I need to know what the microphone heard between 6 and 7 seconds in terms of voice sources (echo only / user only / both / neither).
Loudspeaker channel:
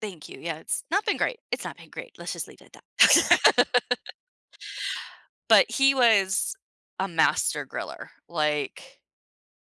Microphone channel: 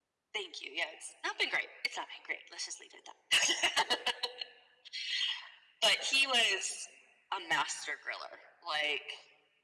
echo only